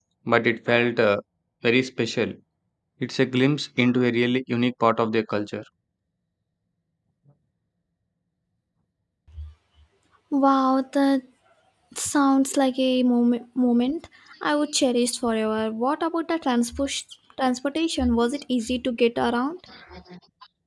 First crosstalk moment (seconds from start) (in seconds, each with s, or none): none